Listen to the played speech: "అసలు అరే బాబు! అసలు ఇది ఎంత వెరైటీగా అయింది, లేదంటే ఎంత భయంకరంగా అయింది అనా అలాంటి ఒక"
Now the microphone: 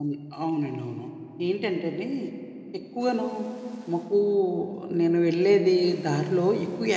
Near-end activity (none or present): present